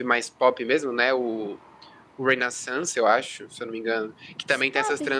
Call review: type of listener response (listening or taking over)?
listening